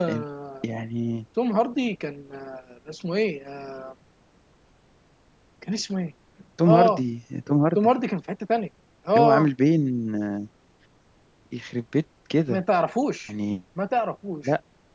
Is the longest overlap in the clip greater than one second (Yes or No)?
No